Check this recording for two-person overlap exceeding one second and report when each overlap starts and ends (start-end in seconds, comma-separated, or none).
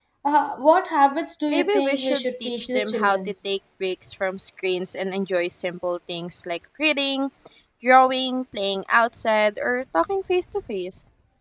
1.5-3.2